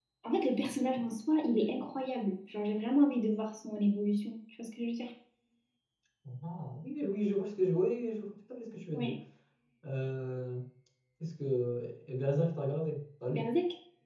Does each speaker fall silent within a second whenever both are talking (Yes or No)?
Yes